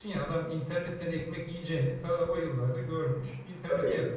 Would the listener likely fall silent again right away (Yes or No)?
No